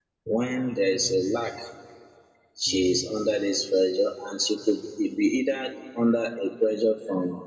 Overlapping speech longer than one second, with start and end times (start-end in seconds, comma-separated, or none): none